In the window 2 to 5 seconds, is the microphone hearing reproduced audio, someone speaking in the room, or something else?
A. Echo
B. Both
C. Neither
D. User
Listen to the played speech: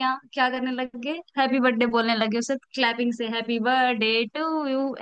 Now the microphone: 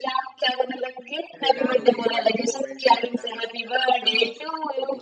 B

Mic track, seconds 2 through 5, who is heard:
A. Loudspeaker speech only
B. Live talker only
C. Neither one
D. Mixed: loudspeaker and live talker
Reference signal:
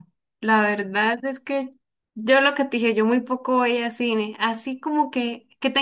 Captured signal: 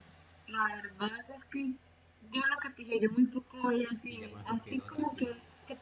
D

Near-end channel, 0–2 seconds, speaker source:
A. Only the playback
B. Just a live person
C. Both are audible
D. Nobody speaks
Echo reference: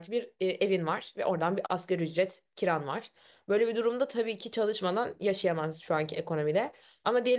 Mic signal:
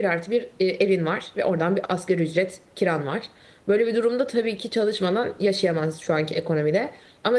A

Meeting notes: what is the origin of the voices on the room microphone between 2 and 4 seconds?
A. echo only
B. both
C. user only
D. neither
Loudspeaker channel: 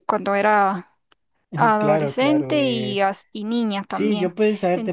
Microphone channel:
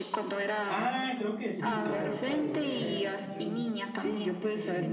B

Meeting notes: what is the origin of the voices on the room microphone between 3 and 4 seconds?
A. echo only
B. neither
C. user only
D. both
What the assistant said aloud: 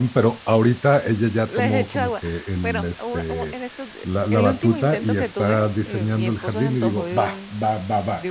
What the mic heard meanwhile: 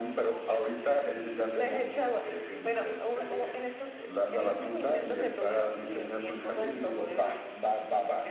A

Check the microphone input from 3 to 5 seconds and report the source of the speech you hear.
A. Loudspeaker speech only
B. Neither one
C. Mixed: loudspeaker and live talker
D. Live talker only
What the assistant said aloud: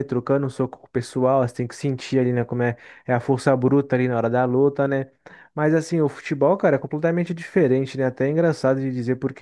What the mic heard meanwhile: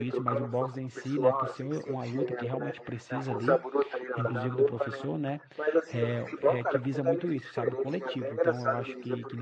C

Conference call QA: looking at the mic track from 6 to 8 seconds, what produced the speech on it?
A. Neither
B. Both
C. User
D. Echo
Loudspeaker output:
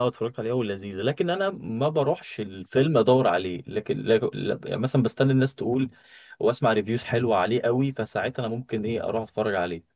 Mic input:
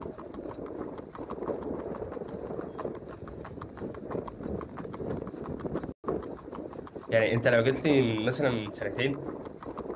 C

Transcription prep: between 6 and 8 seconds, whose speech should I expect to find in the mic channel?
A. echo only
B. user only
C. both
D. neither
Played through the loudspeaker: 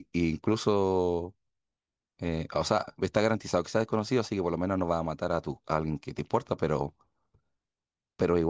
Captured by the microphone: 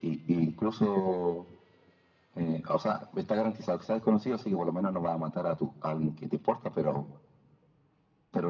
A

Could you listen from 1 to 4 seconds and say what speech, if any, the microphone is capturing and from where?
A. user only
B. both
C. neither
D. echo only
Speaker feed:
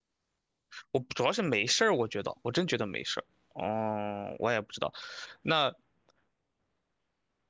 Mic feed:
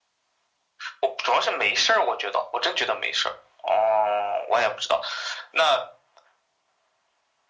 D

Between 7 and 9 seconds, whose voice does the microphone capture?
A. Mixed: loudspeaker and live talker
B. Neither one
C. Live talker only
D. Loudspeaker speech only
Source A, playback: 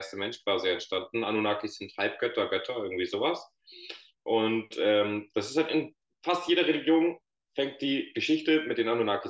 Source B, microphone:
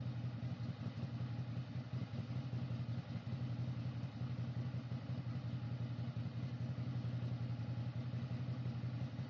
B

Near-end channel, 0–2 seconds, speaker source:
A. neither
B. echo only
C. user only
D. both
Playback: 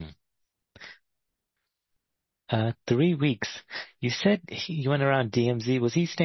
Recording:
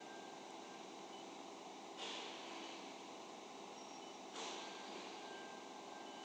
A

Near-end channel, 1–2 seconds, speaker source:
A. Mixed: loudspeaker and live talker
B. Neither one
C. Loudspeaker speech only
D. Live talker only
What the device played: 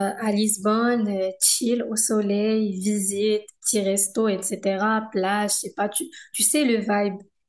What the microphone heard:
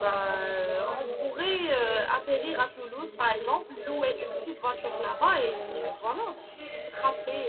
A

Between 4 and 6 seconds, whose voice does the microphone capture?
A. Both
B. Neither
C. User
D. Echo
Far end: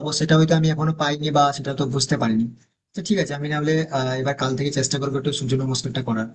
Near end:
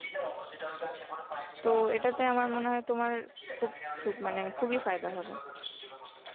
A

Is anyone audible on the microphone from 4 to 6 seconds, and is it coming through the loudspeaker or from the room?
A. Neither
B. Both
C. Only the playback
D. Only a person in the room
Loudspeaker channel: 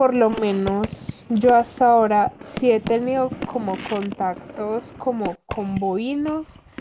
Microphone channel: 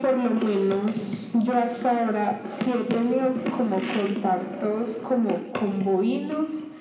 C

